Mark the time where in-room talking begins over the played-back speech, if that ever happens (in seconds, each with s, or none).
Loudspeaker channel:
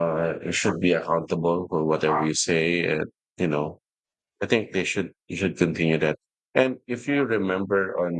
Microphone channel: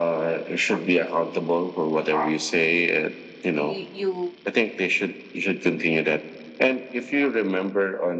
3.5 s